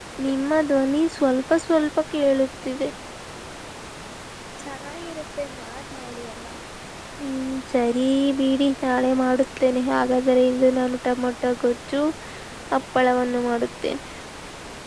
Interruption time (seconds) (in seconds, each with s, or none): none